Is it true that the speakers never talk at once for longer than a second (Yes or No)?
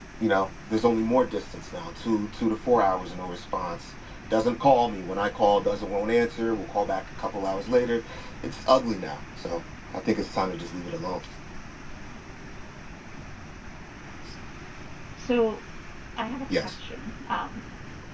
Yes